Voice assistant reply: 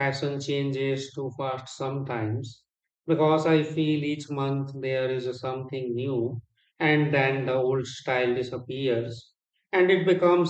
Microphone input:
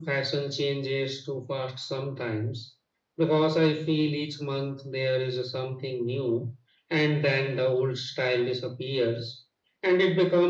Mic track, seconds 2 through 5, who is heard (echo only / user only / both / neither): echo only